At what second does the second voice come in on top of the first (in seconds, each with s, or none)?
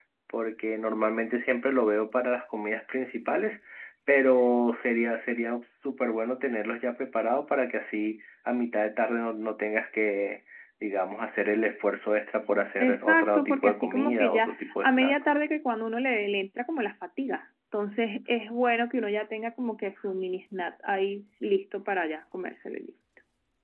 12.8 s